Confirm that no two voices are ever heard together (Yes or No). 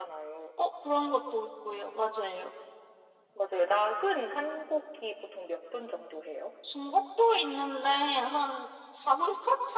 Yes